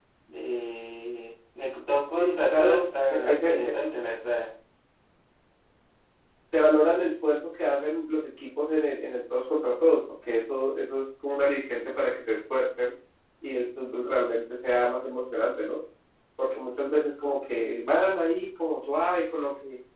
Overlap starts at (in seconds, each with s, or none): 2.2 s